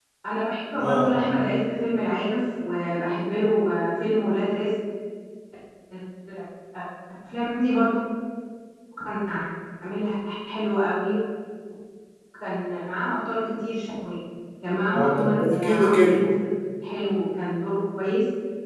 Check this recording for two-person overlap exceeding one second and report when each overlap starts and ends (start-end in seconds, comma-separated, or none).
14.9-16.2